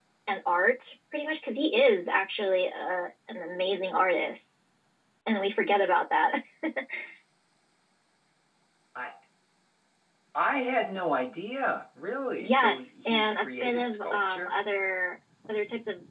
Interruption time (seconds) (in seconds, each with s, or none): 12.4 s